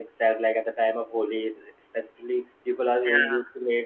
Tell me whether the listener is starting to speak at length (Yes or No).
No